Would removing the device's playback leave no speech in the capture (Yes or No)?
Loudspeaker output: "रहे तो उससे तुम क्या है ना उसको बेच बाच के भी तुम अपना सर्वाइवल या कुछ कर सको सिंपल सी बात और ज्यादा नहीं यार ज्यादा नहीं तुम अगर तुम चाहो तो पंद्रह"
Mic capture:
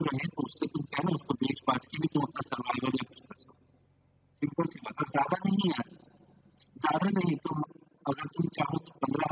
Yes